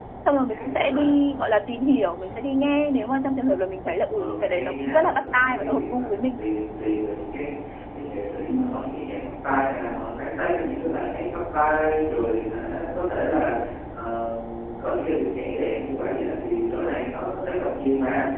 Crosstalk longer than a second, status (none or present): present